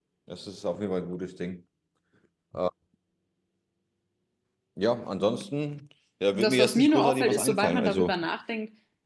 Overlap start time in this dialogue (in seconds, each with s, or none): 6.3 s